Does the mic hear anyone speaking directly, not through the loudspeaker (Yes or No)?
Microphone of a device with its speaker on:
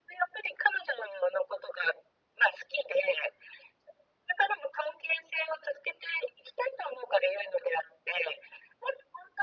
No